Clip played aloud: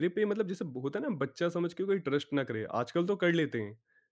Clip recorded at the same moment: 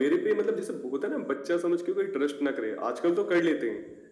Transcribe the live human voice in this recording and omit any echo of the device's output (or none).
none